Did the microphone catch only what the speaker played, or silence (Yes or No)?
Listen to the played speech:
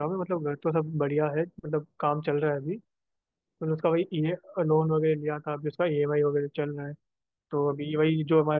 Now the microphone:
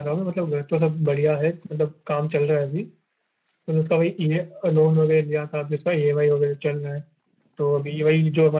Yes